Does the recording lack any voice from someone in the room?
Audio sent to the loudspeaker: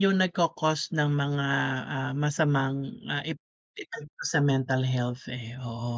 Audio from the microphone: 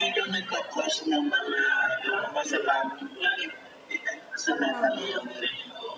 No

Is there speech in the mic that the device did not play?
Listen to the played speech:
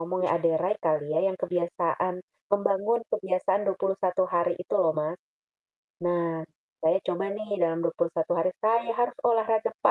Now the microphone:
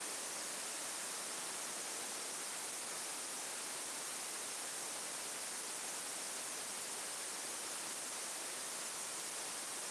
No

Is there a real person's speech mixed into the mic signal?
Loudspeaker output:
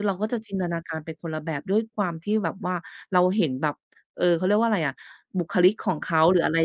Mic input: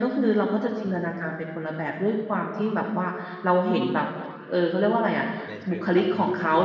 Yes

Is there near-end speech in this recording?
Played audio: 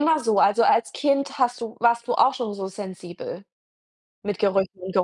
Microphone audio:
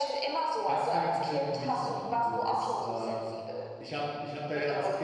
Yes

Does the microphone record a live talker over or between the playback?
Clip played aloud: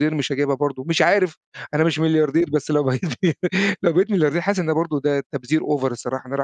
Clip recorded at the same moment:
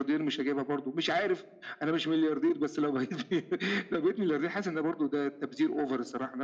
No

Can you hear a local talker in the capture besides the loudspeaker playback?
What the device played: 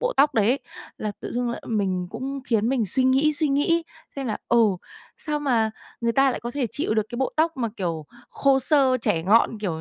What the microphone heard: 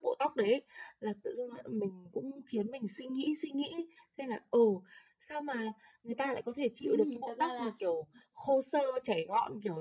Yes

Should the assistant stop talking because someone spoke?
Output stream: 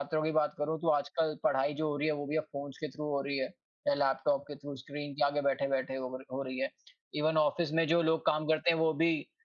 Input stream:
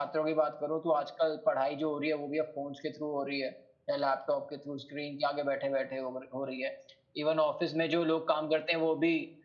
No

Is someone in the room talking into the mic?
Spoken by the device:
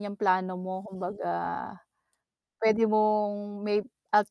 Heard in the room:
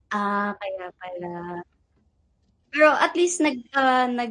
Yes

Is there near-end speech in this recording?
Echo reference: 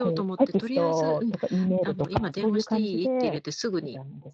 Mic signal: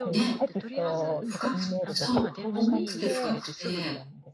Yes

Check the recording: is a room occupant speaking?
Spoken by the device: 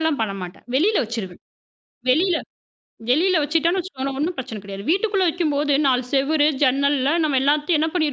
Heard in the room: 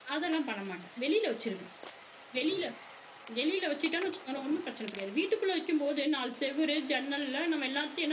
No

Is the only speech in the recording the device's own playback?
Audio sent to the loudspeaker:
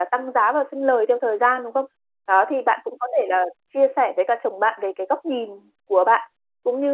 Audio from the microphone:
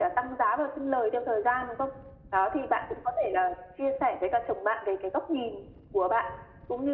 Yes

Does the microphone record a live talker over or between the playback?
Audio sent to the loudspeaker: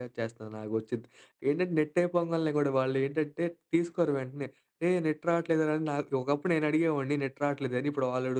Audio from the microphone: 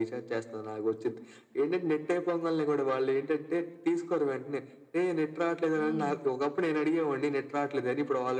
Yes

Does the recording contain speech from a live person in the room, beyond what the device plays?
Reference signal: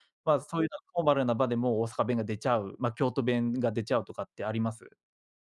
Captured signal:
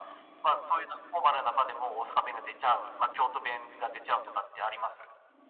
No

